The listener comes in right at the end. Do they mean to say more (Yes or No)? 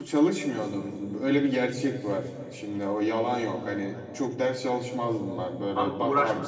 Yes